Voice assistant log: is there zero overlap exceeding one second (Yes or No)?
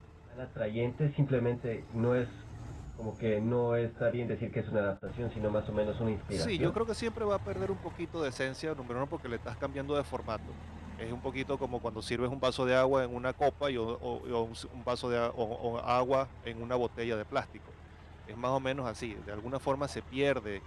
Yes